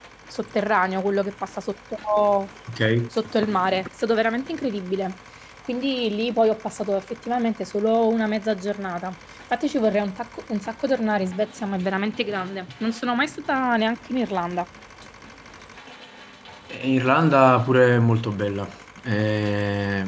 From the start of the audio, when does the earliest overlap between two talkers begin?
none

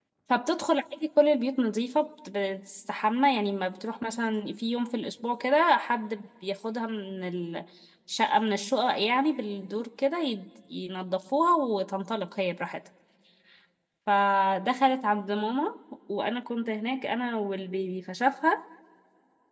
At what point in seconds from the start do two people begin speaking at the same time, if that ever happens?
none

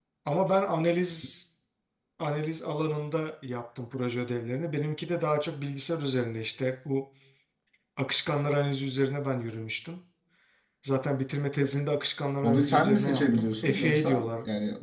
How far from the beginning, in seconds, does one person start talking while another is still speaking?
12.4 s

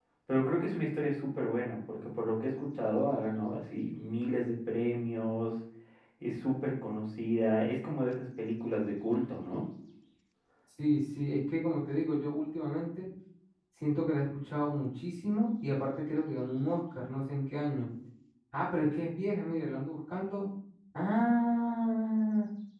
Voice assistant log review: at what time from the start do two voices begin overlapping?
none

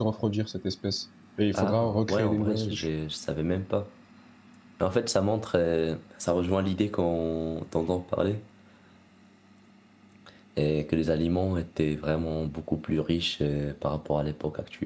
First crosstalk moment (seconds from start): 1.5 s

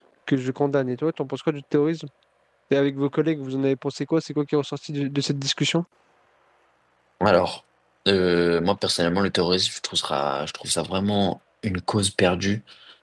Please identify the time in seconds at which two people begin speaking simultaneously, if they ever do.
none

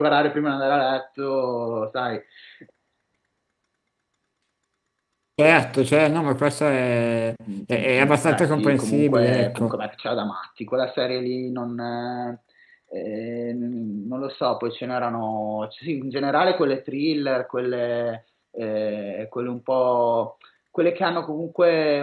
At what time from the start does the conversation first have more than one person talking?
7.5 s

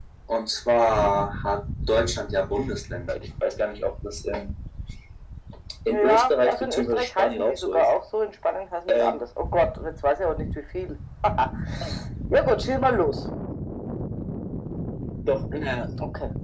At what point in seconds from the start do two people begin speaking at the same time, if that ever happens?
5.9 s

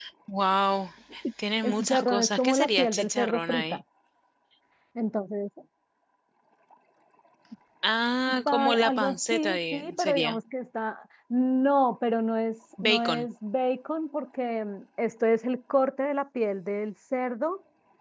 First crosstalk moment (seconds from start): 1.6 s

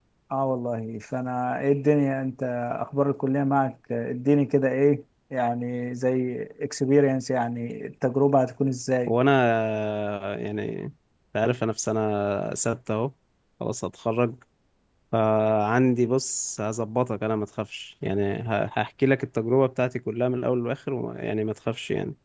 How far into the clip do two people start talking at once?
none

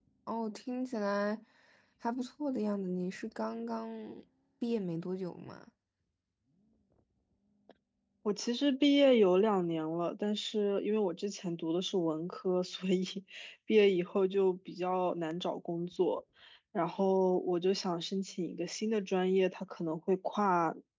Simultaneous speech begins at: none

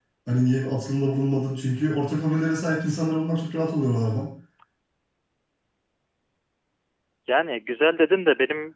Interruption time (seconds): none

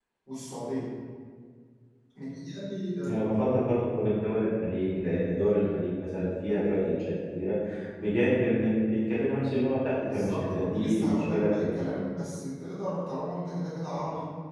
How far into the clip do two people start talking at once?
10.0 s

